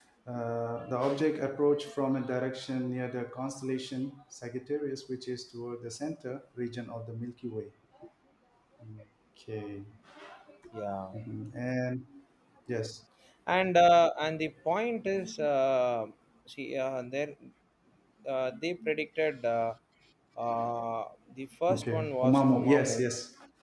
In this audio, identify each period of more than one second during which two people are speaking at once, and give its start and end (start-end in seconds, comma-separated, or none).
21.7-23.1